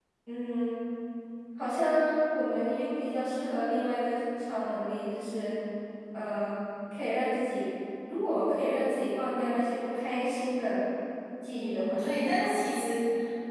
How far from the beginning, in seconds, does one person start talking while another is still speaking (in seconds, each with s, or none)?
11.5 s